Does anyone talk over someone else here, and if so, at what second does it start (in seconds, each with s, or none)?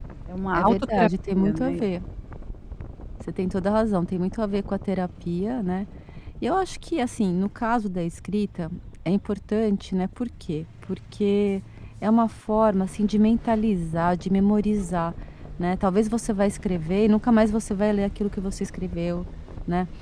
0.5 s